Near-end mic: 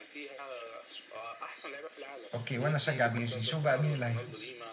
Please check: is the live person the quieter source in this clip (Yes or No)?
No